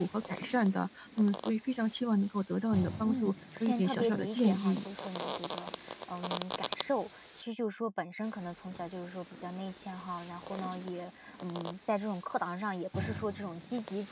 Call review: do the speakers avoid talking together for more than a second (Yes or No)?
No